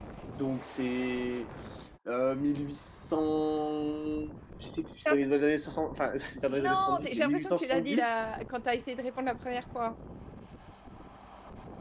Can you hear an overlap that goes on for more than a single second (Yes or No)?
Yes